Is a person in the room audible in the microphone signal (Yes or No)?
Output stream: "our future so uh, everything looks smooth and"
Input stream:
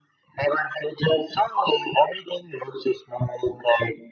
No